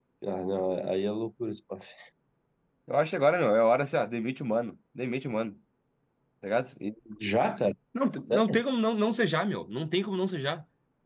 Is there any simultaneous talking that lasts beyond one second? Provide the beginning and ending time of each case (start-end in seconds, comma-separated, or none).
none